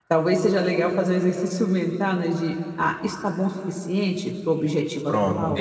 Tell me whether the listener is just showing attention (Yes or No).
No